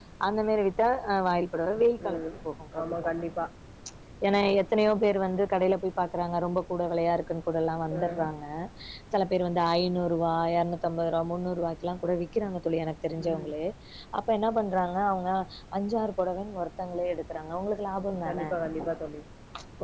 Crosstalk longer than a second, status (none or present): none